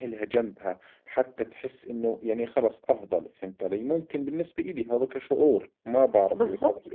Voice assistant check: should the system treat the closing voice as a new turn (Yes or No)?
Yes